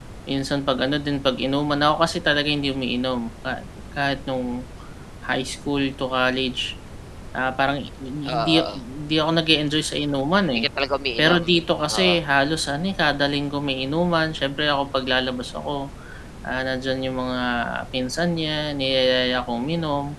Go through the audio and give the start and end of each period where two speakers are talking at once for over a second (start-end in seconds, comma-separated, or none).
none